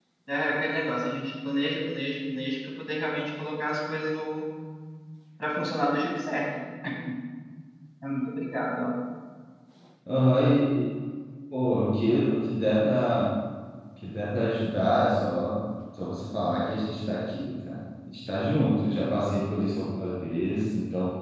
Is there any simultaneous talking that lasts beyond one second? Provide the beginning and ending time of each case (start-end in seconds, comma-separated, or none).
none